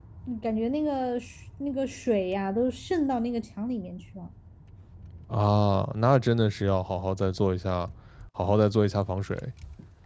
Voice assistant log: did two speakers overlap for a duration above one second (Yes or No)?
No